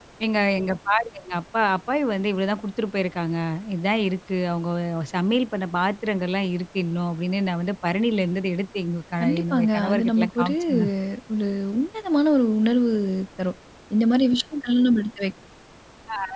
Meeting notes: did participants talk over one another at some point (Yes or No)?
Yes